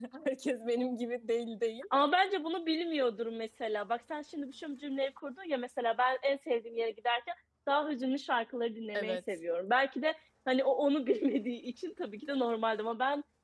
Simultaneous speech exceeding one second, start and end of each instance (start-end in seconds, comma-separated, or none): none